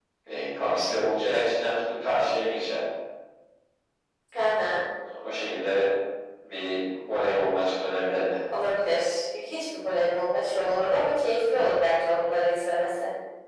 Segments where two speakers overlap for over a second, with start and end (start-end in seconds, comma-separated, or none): none